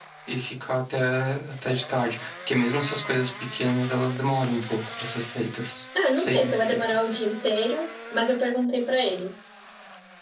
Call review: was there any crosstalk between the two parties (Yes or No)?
Yes